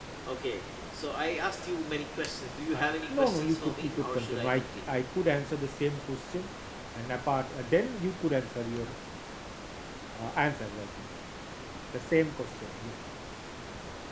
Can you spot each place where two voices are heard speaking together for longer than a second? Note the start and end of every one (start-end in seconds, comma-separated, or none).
2.7-4.6